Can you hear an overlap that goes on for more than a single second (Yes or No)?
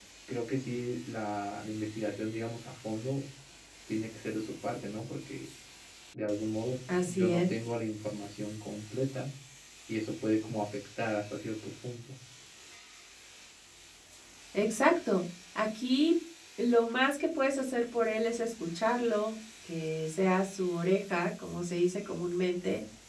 No